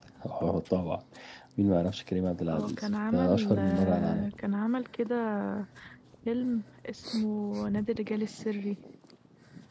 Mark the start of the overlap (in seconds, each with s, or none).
2.5 s